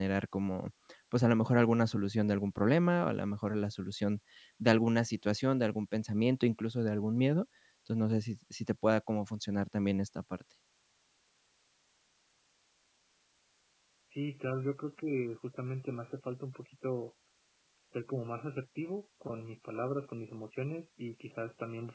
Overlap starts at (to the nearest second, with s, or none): none